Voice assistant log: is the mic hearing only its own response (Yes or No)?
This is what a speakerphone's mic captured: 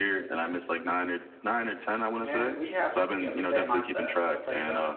No